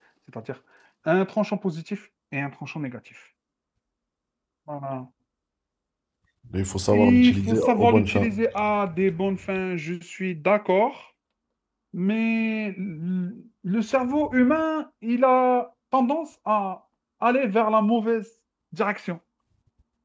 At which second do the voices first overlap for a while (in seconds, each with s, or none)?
6.9 s